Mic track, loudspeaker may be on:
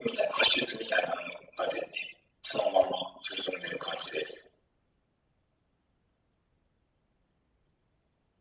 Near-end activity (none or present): none